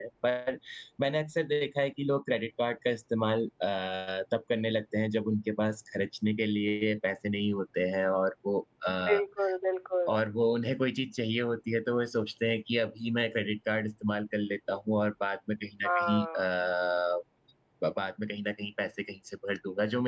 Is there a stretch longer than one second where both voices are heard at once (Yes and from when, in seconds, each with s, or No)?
No